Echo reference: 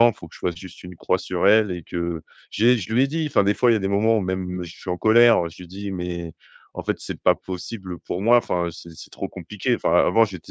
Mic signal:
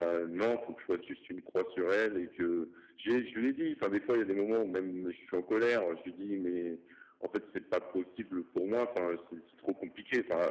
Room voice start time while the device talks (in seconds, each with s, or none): none